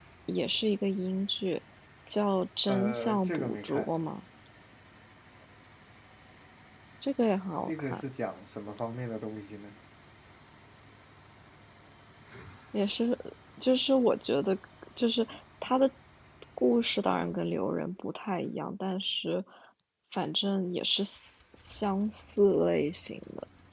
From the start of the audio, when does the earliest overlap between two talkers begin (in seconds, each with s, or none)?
2.7 s